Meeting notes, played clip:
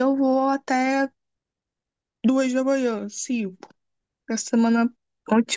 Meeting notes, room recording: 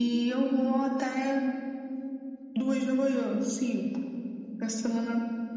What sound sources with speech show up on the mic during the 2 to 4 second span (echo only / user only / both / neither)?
echo only